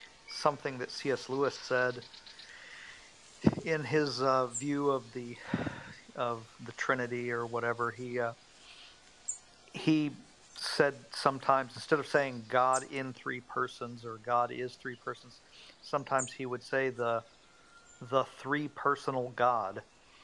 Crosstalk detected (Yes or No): No